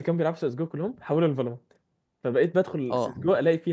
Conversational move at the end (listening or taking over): listening